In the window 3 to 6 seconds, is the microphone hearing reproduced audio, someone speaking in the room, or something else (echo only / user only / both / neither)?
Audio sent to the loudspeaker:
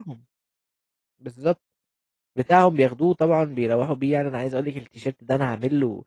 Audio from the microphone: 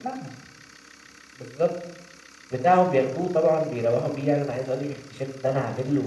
echo only